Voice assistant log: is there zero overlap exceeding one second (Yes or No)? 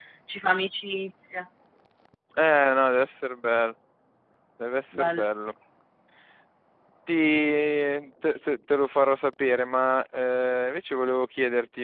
Yes